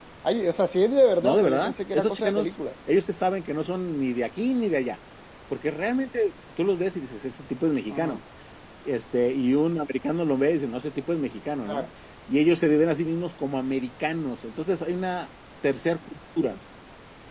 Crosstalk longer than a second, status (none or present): present